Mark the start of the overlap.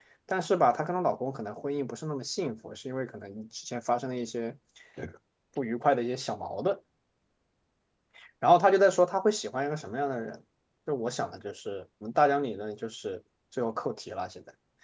none

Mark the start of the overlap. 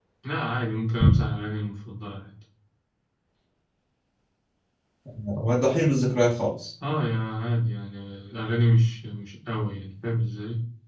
none

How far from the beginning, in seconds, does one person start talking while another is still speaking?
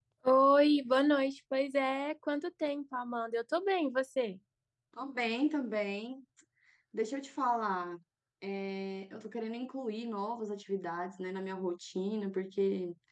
none

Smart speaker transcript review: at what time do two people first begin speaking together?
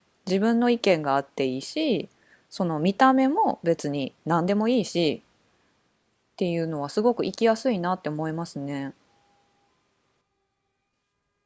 none

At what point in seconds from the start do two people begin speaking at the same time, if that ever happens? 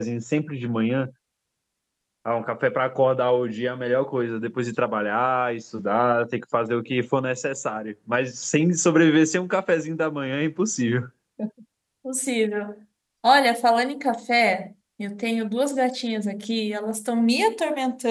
none

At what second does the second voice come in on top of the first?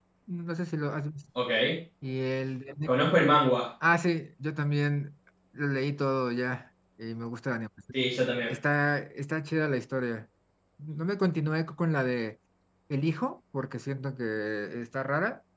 none

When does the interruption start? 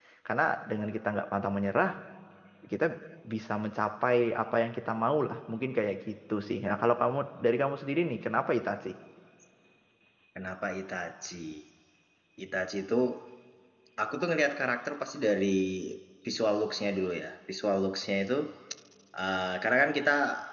none

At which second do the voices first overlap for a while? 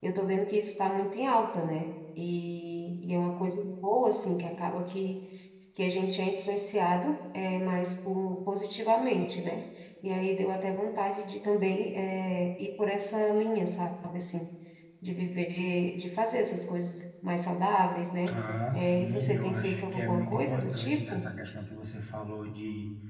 18.7 s

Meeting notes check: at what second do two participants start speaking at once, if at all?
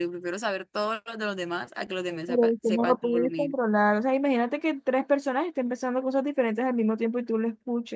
2.3 s

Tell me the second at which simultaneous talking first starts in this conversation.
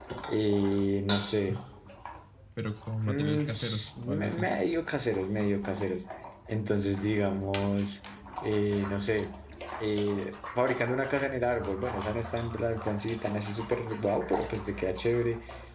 3.1 s

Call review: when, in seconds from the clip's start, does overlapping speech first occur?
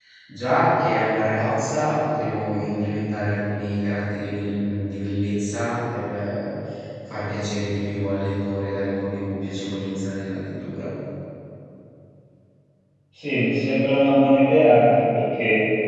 none

